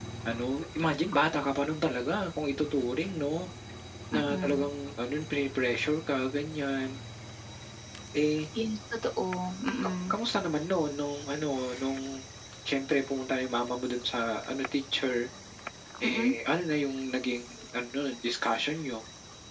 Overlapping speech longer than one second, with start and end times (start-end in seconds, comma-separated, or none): none